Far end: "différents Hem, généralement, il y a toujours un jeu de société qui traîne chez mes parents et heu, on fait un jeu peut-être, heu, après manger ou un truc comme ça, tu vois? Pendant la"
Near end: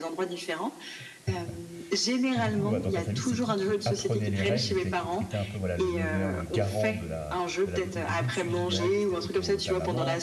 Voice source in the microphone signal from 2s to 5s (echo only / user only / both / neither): both